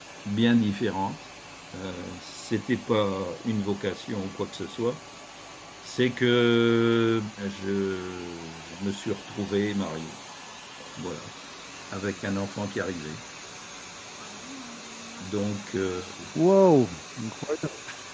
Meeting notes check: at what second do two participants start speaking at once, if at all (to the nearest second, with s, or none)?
none